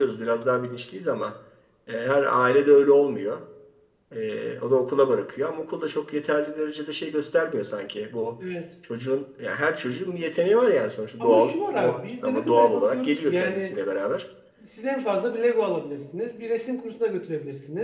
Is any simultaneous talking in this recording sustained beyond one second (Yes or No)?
Yes